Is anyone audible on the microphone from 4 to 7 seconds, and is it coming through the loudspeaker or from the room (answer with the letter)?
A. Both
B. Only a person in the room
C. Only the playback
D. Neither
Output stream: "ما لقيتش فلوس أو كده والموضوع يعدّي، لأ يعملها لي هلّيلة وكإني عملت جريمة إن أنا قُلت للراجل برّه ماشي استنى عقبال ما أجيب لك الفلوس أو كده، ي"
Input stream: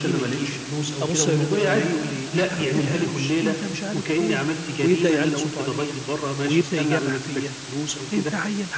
A